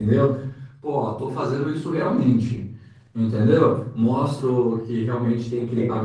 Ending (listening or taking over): listening